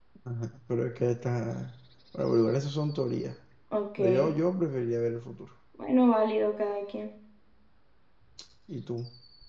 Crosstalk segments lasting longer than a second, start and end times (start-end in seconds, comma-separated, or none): none